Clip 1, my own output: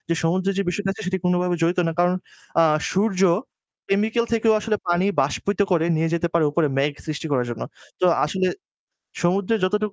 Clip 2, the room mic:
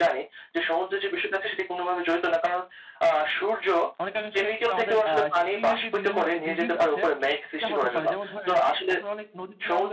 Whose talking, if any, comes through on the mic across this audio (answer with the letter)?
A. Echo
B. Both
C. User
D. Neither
B